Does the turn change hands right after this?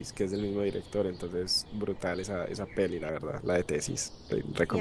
Yes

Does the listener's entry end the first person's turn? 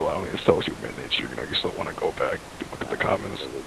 Yes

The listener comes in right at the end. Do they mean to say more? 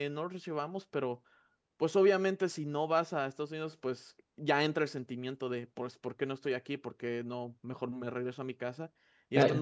No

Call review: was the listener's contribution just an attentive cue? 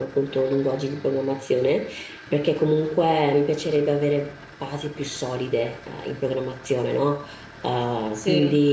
Yes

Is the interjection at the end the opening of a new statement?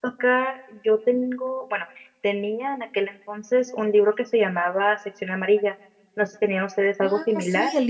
Yes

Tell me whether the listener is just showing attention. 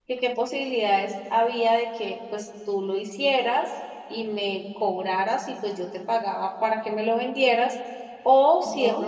Yes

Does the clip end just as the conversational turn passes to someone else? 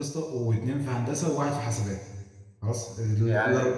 No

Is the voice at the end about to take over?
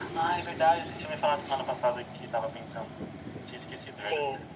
Yes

